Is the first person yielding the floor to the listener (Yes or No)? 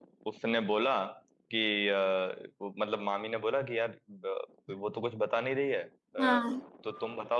No